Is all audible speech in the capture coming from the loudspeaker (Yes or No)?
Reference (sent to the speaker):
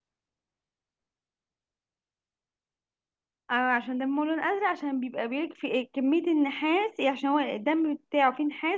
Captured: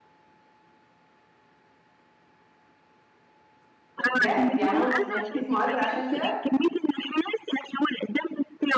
No